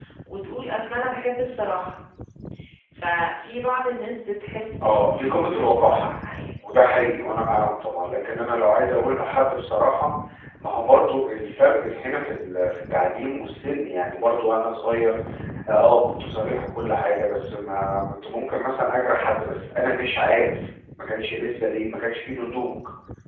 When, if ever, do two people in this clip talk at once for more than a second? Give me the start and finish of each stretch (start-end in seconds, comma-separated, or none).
4.8-6.0